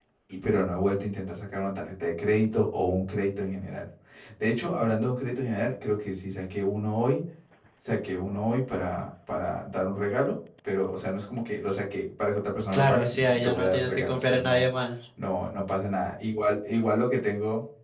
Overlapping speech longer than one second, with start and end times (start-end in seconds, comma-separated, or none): 12.7-14.6